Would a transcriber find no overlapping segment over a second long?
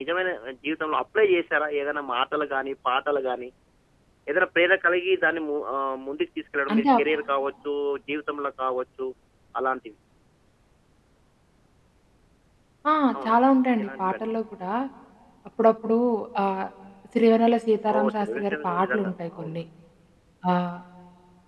No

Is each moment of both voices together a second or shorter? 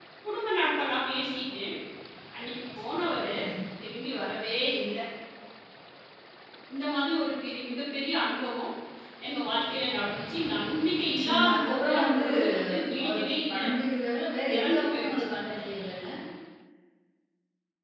No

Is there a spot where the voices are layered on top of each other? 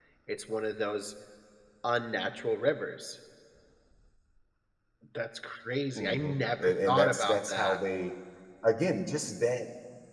Yes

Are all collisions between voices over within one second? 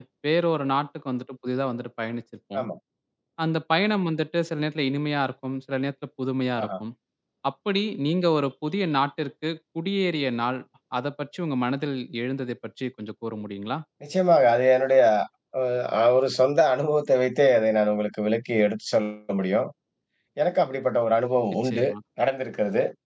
Yes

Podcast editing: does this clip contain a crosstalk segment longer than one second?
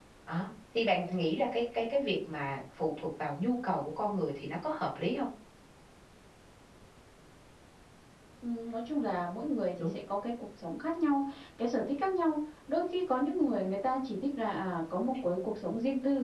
No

